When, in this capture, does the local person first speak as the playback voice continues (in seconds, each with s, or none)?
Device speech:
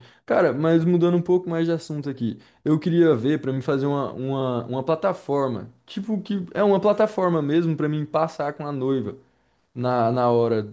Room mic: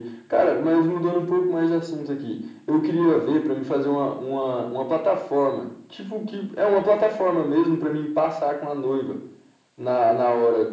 none